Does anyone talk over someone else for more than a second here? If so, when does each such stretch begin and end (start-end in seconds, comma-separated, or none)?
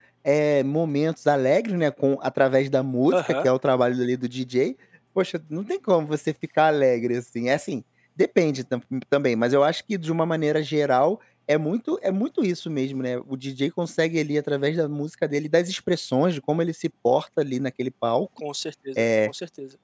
none